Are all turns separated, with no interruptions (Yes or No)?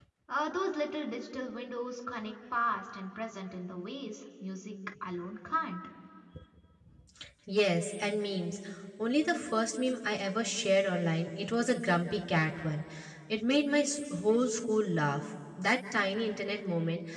Yes